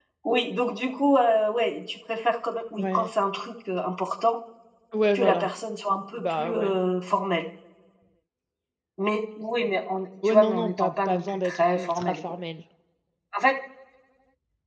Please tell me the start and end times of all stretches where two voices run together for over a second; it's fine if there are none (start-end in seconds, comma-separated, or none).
10.2-12.2